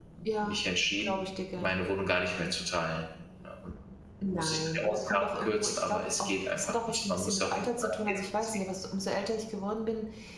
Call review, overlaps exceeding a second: present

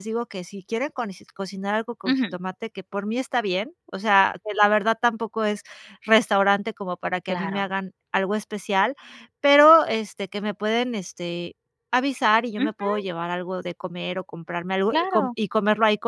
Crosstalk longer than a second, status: none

